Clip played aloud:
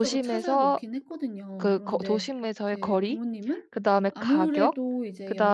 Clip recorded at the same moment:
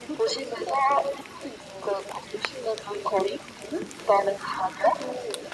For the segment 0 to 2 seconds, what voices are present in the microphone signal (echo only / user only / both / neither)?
echo only